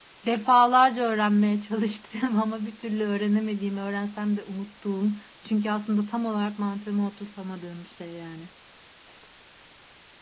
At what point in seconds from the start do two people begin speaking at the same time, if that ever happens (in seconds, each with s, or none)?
none